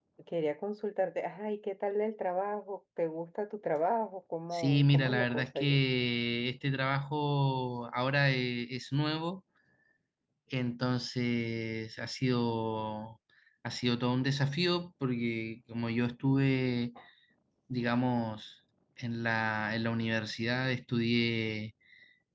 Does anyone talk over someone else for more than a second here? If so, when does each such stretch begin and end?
4.5-5.8

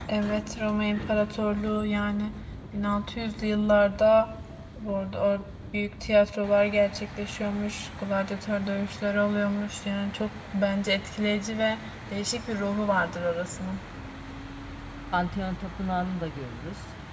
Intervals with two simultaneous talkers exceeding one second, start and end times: none

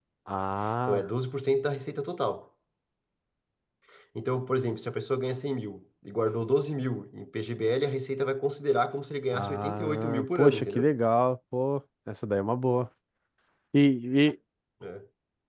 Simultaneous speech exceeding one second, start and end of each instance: 9.3-10.9

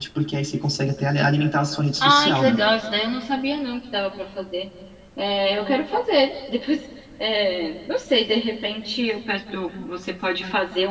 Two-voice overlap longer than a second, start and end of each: none

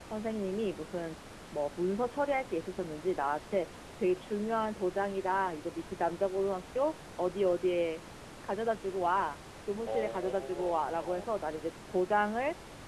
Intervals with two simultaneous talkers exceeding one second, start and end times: 9.9-11.3

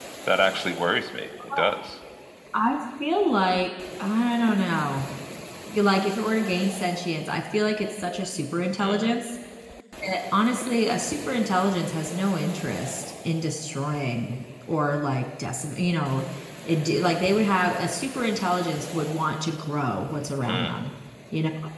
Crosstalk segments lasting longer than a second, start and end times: none

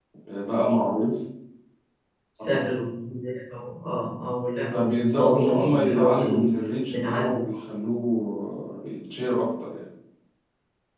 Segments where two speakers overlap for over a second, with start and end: 4.7-6.4

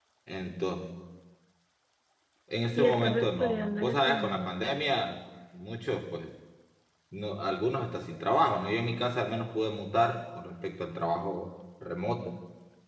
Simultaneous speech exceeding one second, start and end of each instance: 2.8-4.5

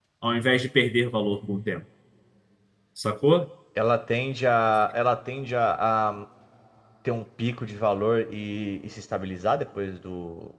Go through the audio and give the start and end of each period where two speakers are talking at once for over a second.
none

